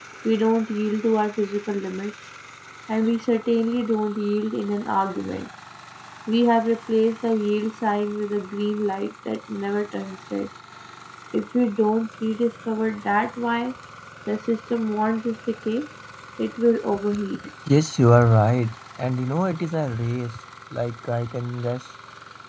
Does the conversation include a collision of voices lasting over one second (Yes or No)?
No